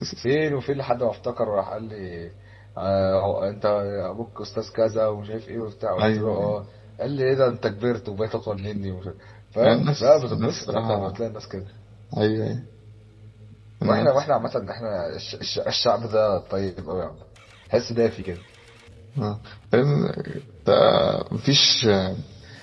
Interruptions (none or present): present